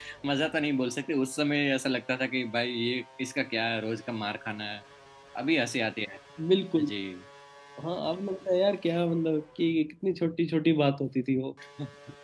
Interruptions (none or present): none